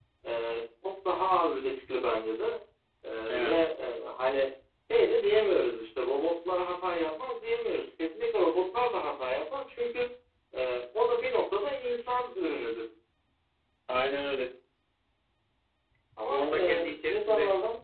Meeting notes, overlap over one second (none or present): present